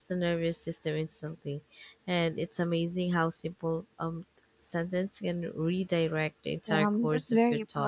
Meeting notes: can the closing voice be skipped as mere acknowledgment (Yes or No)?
No